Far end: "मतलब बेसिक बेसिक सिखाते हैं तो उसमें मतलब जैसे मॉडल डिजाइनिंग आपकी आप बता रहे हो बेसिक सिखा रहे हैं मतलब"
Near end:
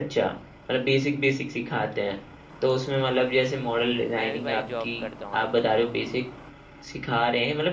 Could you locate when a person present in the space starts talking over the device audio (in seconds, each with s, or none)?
4.2 s